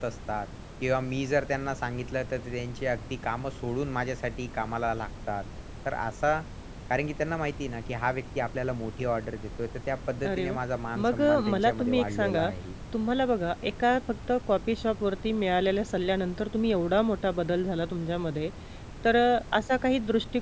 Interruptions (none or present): present